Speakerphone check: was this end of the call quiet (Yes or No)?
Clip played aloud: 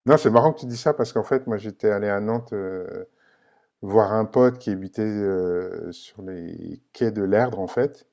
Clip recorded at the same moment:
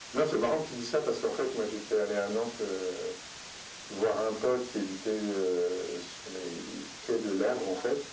Yes